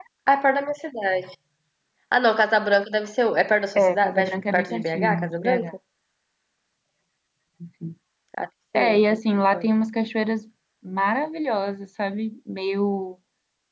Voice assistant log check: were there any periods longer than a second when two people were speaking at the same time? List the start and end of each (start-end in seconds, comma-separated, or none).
4.0-5.7